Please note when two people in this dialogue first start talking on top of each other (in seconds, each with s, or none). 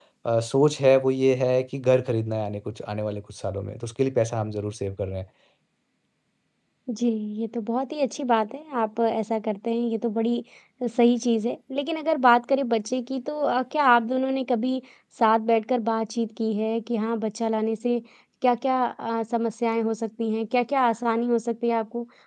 none